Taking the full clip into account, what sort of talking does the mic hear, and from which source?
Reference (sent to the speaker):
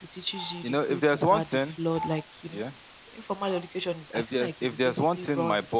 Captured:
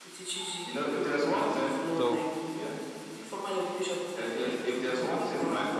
both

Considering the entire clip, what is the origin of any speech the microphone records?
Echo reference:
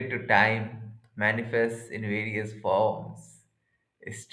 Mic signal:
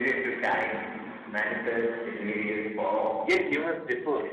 both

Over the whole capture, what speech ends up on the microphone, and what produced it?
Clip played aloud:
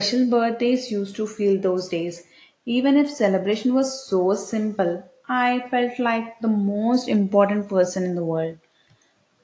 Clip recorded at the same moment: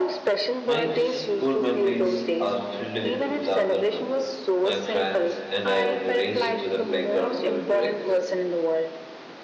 both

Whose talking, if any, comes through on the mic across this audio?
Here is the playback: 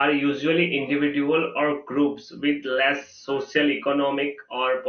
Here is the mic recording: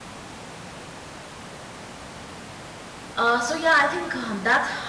user only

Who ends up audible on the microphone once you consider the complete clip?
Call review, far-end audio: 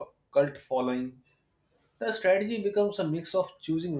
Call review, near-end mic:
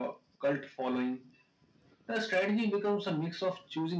echo only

